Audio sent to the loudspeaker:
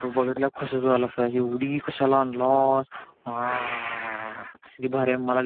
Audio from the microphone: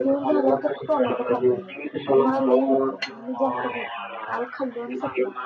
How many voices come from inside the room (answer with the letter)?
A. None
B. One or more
B